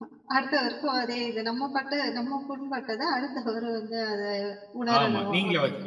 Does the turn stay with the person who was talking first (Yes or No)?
No